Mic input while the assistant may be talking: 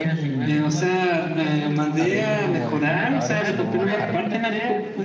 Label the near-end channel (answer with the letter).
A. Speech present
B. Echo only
A